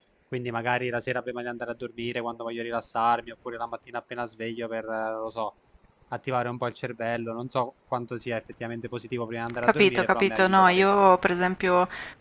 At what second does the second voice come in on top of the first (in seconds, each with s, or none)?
9.5 s